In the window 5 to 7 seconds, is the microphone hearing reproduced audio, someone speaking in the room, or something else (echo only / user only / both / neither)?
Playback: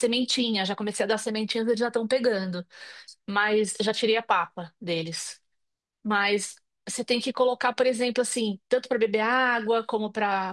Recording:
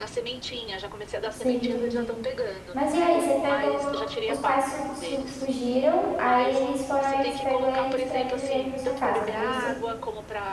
both